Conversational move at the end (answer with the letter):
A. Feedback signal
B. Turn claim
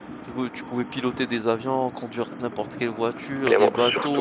B